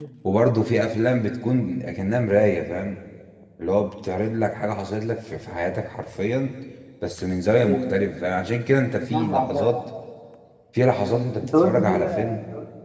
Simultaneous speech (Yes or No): Yes